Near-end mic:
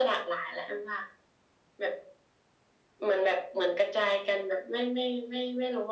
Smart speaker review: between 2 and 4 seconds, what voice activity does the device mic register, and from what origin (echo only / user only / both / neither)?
echo only